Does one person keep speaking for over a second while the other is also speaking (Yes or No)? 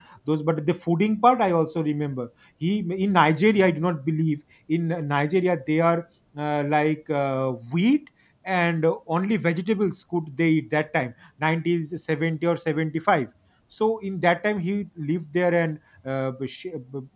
No